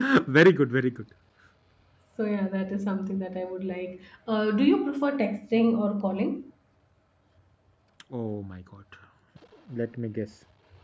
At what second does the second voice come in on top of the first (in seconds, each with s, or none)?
none